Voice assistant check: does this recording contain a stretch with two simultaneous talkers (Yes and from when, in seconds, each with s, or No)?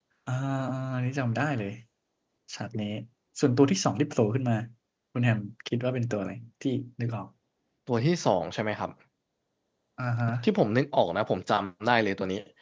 No